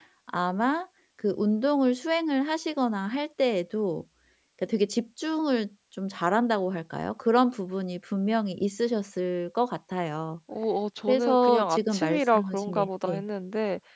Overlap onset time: 11 s

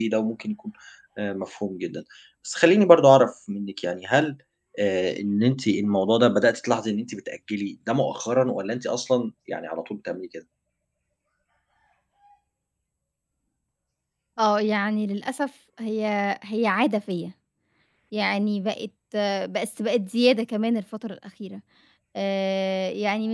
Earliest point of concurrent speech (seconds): none

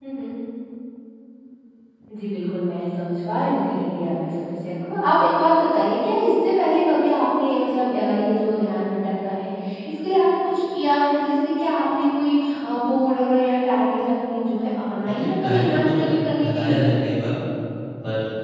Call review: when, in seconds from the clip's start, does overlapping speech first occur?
15 s

